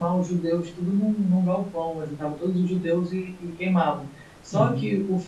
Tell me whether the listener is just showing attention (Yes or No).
Yes